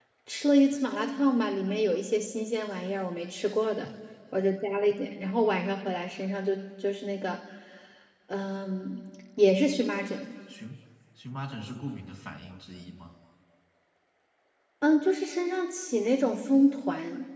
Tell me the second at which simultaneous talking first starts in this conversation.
none

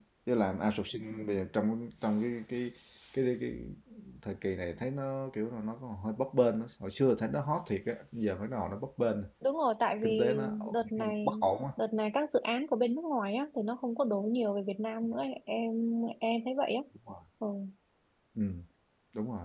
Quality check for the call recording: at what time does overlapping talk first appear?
10.0 s

